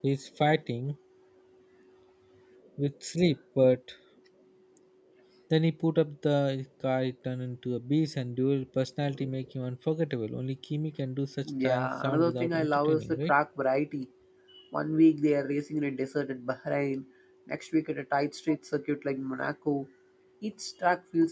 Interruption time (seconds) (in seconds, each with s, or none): 11.4 s